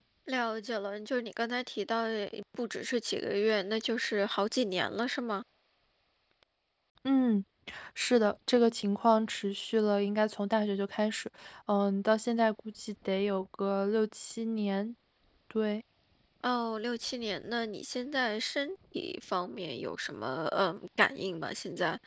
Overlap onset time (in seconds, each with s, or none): none